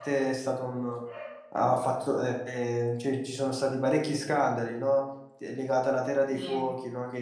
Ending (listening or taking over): listening